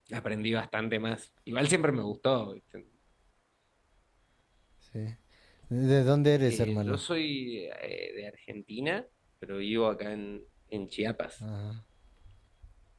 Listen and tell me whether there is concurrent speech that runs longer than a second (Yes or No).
No